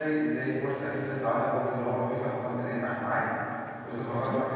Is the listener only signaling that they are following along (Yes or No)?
Yes